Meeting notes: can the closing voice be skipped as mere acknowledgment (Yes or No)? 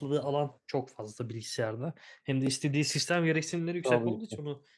Yes